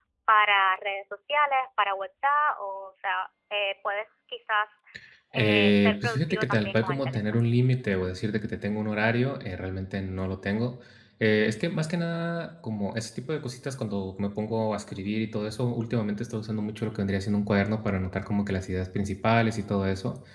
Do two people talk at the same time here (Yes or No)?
Yes